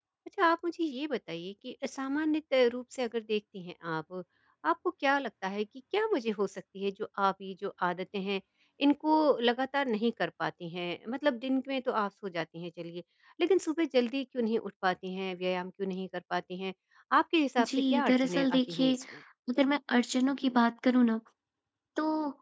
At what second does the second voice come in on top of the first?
17.6 s

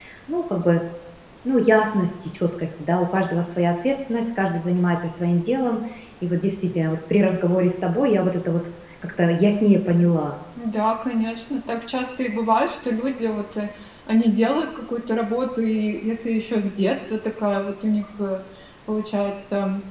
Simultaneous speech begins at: none

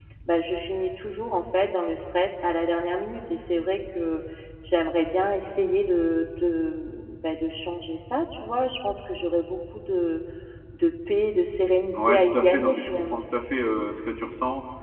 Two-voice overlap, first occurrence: 11.9 s

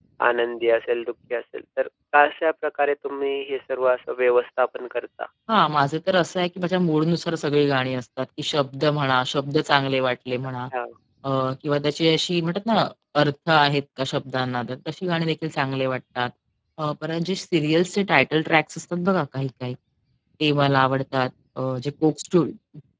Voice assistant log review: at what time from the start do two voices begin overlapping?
none

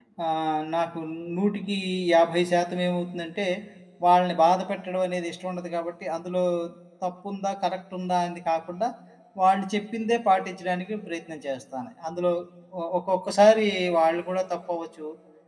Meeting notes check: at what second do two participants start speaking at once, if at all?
none

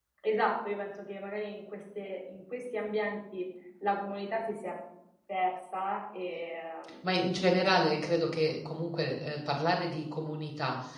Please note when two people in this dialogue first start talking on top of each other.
none

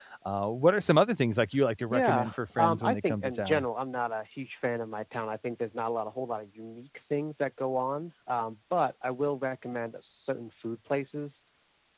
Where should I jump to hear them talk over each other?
1.9 s

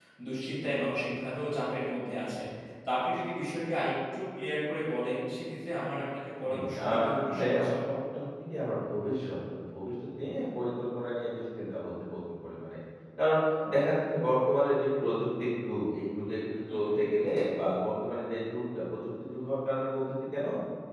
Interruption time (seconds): 6.4 s

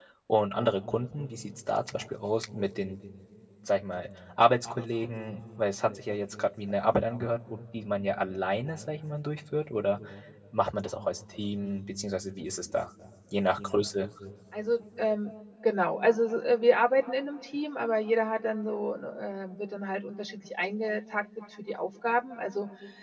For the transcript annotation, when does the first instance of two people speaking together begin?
none

